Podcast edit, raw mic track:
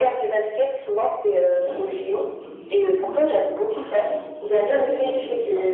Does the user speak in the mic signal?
Yes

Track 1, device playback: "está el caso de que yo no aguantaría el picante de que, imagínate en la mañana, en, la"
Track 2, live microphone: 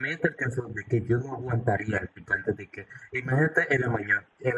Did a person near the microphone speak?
No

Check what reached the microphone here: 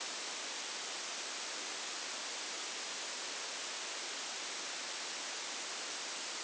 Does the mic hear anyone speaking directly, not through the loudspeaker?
No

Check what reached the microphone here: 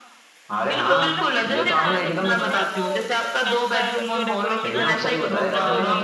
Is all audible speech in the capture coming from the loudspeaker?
No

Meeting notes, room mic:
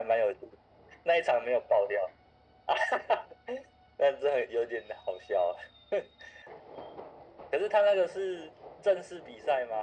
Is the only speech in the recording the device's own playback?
Yes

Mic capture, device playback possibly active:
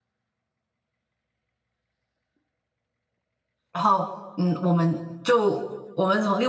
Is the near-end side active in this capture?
Yes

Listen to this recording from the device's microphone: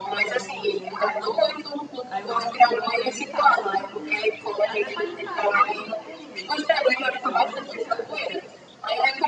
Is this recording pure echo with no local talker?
No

